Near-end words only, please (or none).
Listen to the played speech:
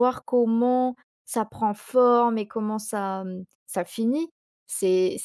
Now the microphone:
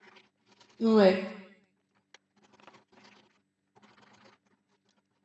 ouais,